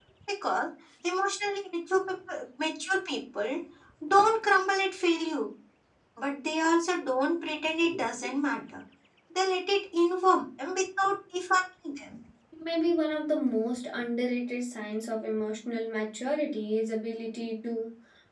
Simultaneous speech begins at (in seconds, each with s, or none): none